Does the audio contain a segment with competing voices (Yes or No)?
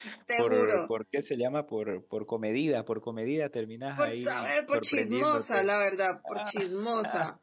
Yes